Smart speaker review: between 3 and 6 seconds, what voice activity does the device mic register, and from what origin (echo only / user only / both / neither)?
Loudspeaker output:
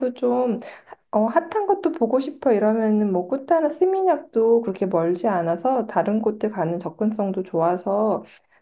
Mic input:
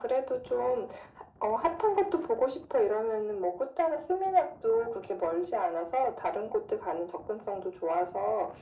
echo only